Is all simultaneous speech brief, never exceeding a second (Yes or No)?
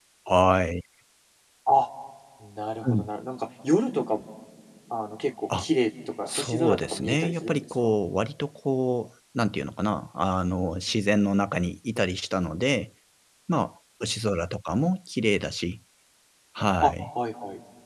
No